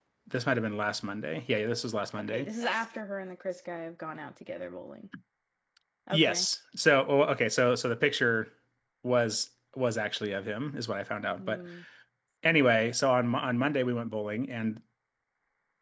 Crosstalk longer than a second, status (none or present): none